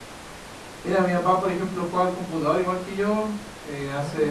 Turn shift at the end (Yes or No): No